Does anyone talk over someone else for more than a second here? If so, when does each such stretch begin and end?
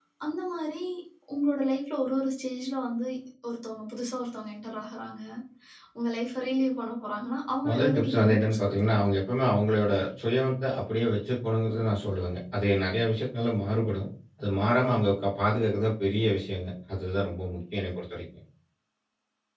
7.7-9.0

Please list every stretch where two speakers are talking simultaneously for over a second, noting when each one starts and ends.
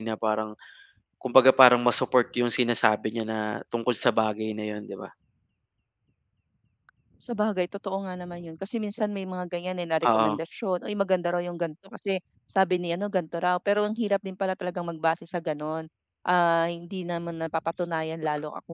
none

